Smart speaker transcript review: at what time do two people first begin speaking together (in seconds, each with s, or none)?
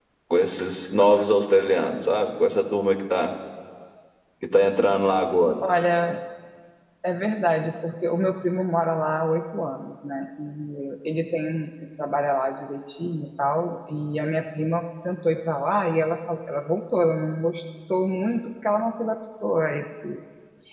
none